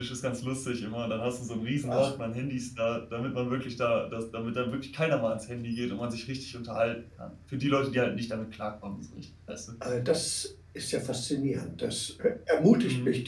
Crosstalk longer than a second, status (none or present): none